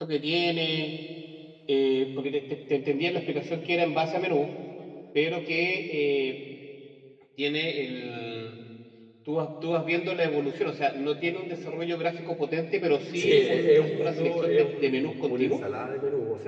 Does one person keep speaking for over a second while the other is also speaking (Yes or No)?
Yes